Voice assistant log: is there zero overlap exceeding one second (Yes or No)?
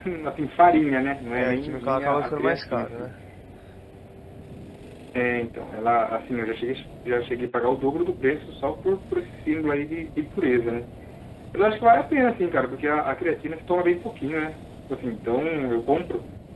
No